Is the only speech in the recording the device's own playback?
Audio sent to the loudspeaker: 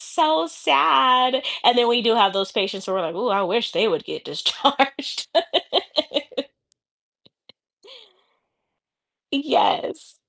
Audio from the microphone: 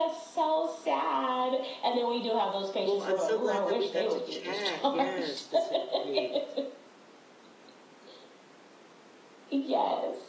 No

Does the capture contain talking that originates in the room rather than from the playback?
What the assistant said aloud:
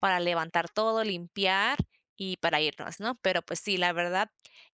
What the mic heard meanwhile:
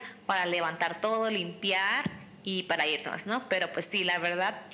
No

